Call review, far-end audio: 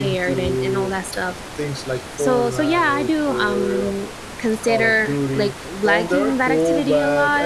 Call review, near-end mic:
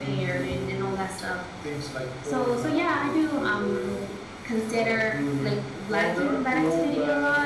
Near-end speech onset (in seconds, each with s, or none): none